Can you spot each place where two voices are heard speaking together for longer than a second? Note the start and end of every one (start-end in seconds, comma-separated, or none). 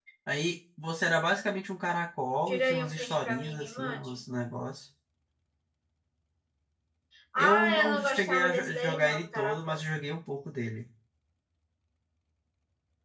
2.5-4.2, 7.4-9.8